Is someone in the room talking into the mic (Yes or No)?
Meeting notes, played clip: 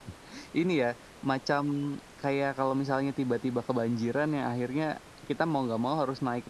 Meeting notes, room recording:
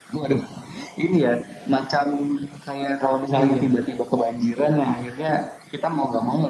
Yes